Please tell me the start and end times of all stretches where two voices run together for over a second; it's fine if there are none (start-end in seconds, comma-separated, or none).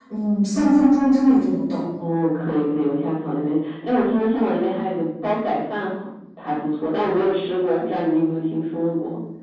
none